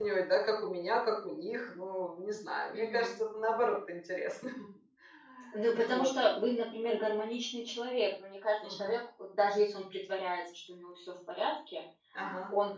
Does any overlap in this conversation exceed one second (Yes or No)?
No